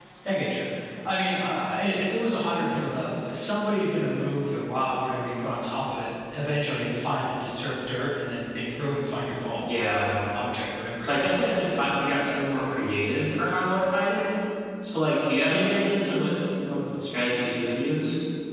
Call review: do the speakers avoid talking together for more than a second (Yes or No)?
Yes